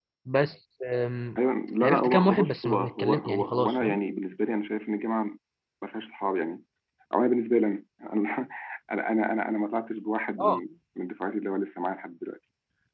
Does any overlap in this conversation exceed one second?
Yes, from 1.8 s

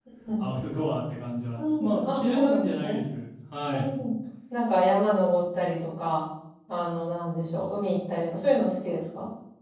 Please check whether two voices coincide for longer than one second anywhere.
Yes, from 1.6 s

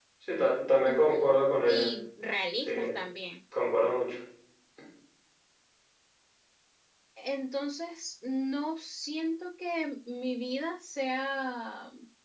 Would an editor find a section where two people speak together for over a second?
No

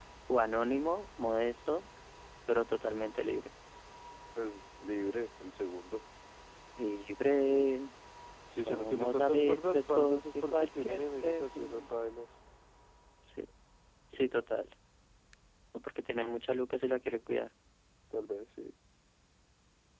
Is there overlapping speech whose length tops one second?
Yes, from 8.6 s

